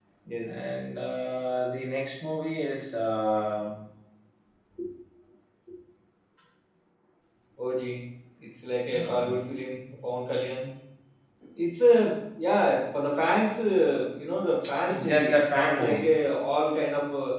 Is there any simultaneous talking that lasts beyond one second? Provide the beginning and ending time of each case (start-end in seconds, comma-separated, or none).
14.9-16.1